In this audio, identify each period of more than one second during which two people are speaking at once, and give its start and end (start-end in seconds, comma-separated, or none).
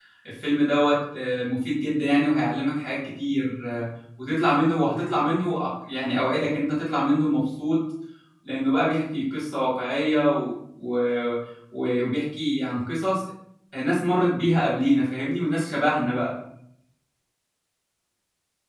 none